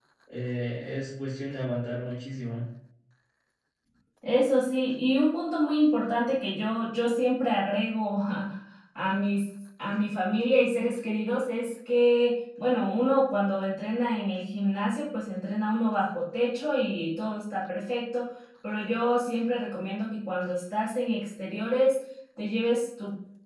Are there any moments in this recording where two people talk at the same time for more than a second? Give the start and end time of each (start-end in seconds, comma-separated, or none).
none